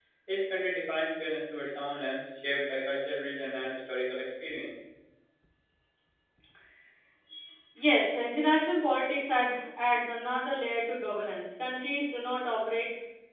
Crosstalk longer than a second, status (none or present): none